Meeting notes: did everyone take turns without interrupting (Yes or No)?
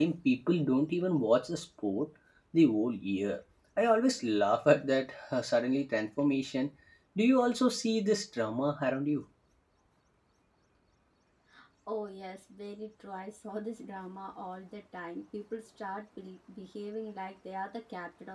Yes